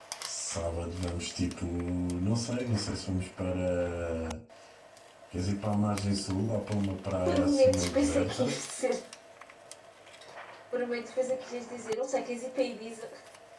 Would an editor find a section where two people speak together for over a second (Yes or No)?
Yes